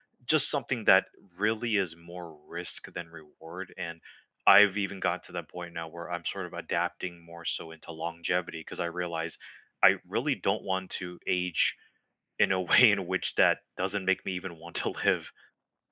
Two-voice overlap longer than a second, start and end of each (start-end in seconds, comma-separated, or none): none